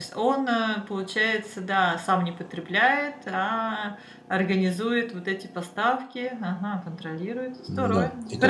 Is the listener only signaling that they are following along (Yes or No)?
No